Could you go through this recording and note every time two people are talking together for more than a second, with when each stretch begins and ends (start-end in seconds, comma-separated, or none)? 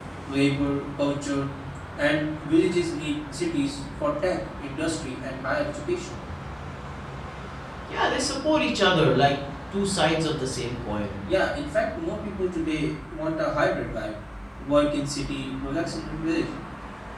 none